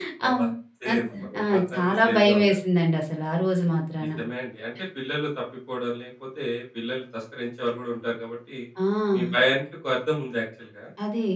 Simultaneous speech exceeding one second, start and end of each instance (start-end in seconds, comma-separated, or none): 0.9-2.6